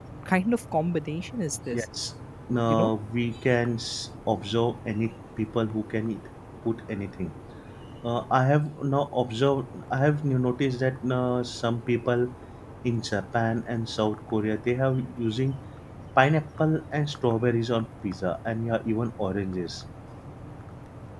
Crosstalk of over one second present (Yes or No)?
No